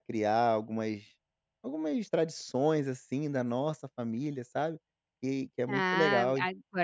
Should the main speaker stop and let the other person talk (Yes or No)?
Yes